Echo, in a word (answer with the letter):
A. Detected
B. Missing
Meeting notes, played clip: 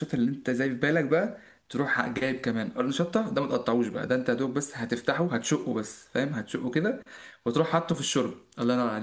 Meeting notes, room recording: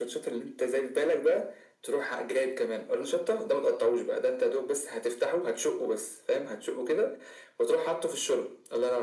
A